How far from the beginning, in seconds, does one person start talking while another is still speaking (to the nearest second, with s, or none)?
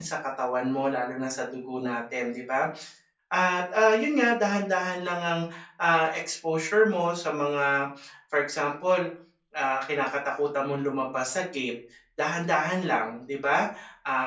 none